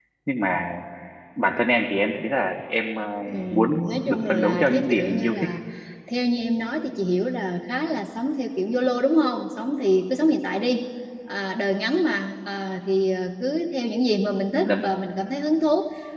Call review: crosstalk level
present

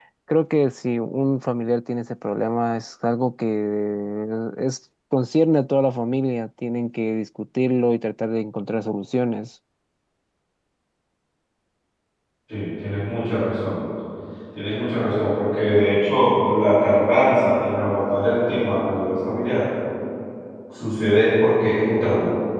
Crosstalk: none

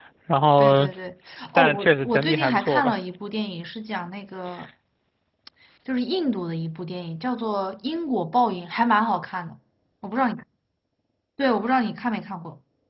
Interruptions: present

